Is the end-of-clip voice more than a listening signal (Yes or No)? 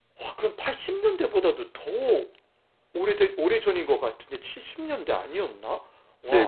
Yes